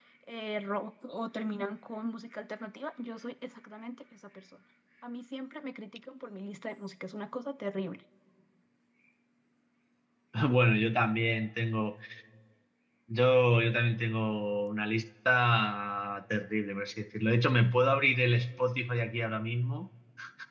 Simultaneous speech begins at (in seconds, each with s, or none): none